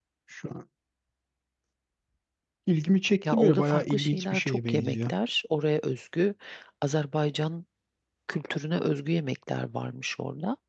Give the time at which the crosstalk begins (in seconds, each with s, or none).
3.2 s